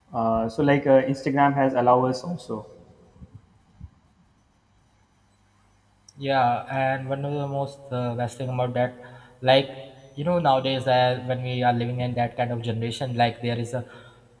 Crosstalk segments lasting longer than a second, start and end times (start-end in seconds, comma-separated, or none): none